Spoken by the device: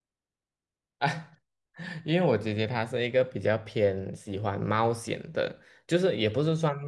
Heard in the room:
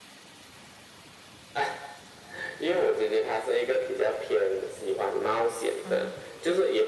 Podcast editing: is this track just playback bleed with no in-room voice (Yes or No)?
No